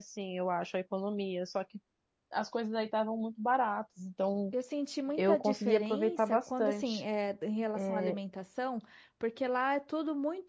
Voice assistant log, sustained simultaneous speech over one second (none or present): present